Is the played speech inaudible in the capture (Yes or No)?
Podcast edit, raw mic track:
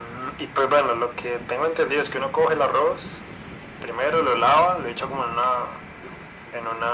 No